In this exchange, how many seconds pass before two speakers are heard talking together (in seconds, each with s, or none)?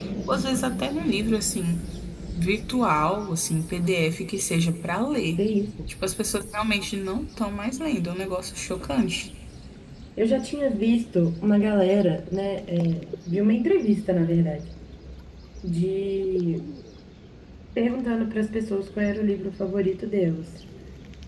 none